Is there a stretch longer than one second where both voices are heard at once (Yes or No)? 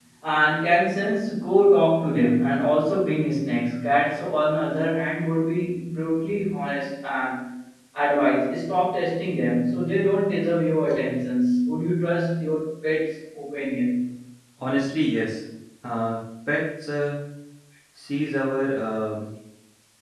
No